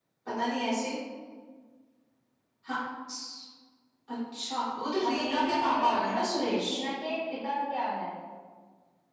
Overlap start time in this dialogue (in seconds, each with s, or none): 5.0 s